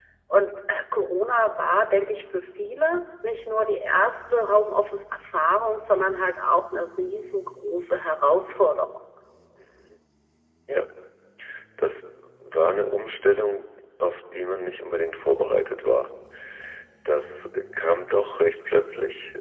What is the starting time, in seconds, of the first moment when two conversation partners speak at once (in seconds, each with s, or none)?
none